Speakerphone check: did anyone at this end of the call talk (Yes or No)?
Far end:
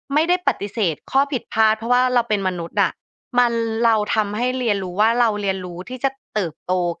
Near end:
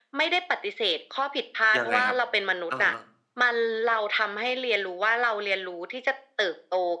Yes